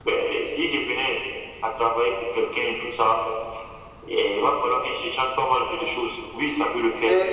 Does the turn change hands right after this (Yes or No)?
Yes